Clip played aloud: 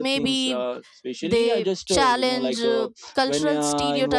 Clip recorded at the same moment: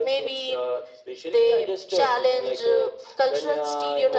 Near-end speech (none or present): none